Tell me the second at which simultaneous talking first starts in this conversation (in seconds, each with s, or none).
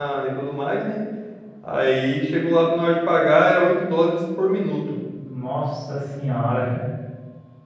none